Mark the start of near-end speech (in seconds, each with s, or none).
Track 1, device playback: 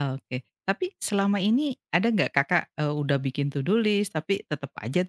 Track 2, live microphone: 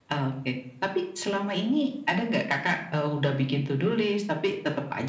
none